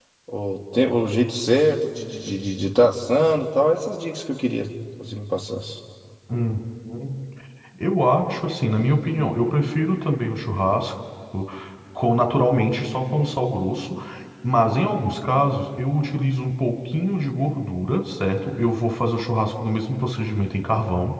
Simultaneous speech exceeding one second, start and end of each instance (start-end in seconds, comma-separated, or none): none